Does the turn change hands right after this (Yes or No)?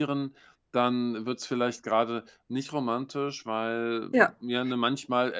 No